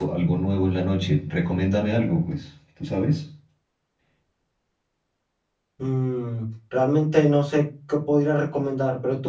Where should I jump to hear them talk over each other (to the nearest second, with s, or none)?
none